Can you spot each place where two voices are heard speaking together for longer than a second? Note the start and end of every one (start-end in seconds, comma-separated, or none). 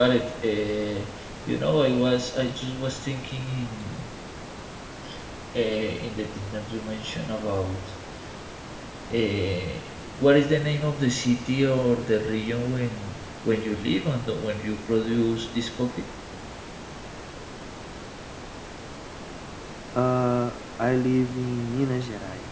none